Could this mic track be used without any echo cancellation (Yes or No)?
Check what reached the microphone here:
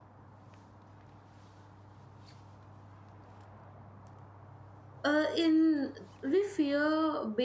Yes